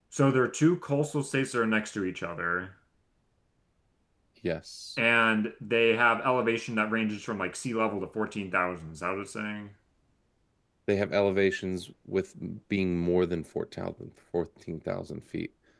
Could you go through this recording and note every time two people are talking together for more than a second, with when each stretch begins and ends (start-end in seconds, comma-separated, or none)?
none